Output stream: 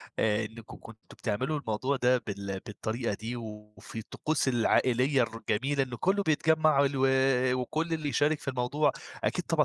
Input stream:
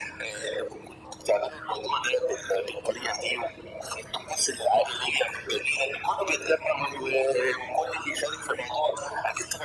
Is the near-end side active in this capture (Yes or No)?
No